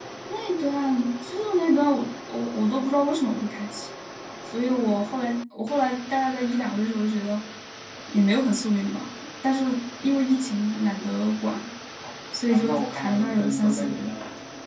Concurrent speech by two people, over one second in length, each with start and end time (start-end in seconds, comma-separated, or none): 12.5-14.1